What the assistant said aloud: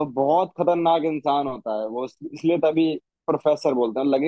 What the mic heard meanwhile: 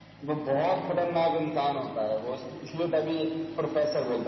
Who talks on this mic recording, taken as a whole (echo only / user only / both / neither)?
echo only